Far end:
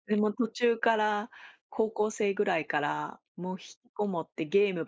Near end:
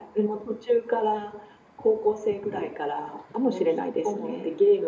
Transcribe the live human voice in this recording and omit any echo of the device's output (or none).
かもしれないですね。